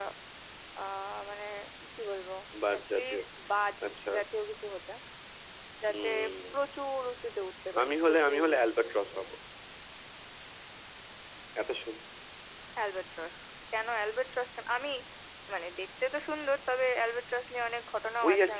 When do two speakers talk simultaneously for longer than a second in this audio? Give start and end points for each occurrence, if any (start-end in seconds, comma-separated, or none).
7.8-9.2